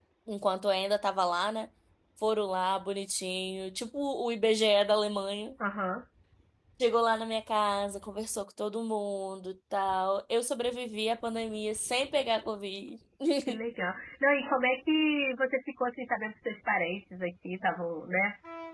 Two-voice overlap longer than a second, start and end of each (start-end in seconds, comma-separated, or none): none